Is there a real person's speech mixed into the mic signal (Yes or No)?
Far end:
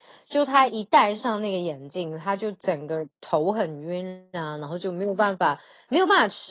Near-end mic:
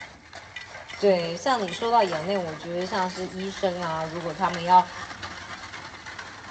Yes